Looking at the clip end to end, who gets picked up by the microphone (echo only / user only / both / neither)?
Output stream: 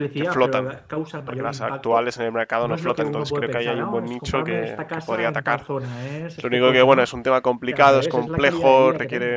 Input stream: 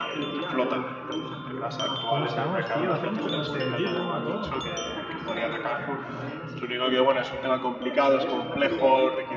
both